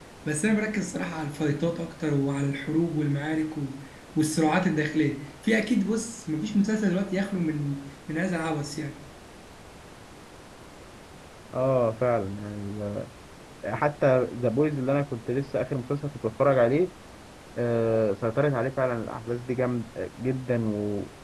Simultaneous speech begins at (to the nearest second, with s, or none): none